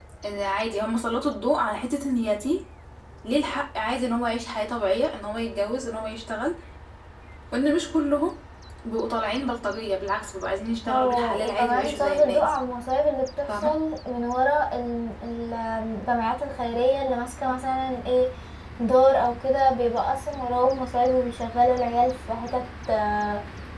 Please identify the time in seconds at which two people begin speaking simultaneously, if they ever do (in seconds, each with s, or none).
10.8 s